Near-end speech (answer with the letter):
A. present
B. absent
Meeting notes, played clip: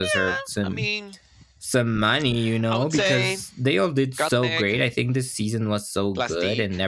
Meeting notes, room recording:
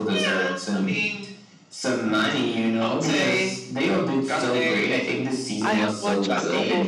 A